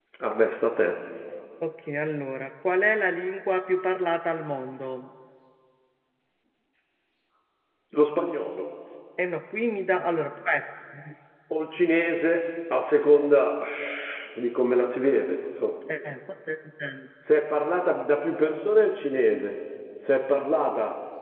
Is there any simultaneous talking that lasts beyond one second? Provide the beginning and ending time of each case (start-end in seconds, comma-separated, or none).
none